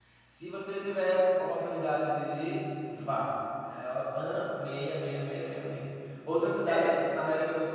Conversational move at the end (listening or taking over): listening